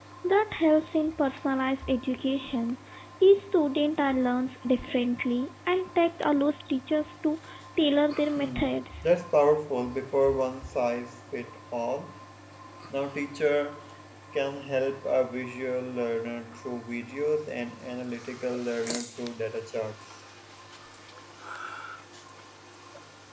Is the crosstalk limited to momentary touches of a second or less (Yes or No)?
Yes